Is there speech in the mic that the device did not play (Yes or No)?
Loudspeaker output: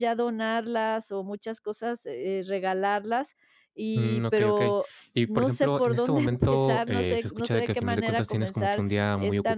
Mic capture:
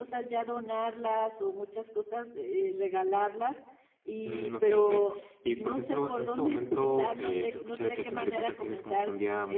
No